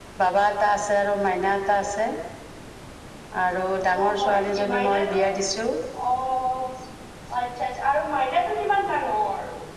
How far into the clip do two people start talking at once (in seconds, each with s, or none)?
3.9 s